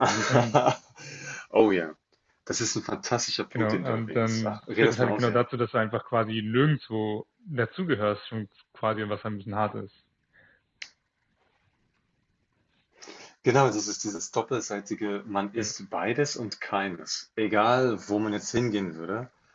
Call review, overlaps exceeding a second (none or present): present